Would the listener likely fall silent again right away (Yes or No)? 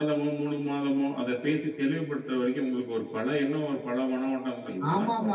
No